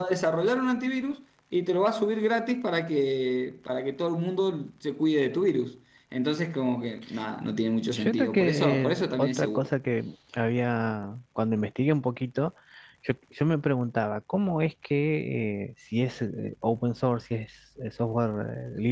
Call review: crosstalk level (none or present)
present